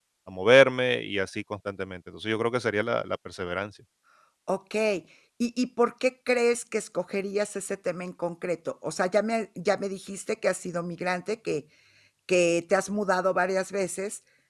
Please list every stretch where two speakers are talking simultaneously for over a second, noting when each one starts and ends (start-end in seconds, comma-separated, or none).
none